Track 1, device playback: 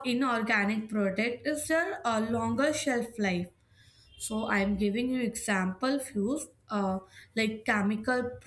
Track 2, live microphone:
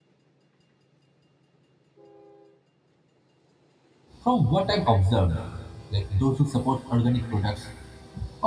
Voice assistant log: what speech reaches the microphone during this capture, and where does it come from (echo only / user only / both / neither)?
user only